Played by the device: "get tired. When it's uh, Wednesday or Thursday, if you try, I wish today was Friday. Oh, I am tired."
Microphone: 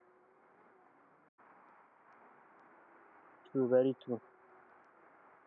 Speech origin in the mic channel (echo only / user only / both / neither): user only